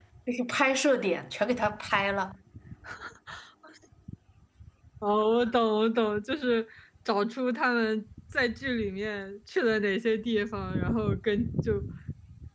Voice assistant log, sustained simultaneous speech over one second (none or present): none